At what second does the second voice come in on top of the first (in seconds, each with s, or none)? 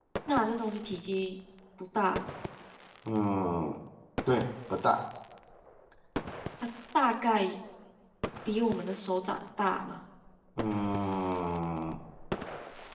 none